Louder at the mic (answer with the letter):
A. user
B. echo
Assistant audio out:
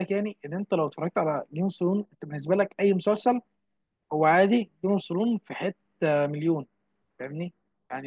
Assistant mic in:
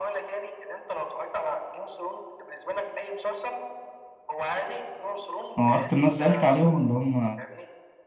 A